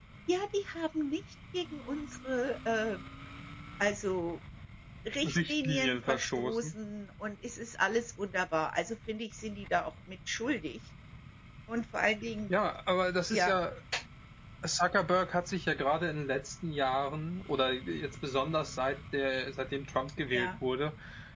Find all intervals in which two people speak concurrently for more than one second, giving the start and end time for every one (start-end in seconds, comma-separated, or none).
5.2-6.7